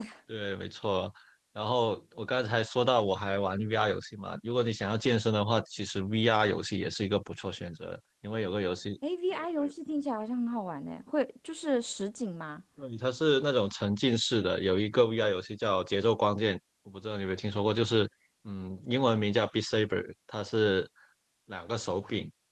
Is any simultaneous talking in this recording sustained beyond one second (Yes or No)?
No